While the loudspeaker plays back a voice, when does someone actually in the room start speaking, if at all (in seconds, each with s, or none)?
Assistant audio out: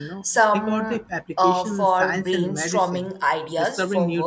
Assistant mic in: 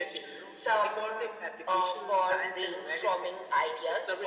none